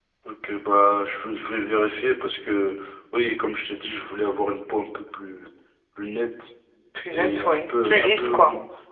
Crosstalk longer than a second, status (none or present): present